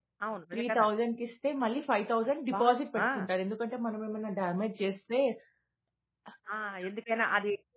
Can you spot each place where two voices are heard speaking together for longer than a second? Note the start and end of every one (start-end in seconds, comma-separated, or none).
none